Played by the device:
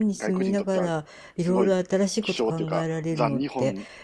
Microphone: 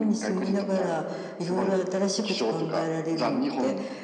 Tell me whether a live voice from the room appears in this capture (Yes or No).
No